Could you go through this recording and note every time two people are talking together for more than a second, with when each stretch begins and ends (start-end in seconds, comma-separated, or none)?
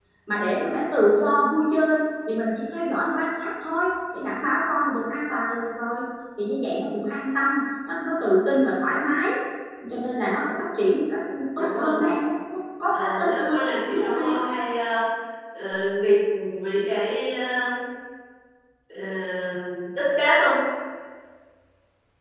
12.9-14.4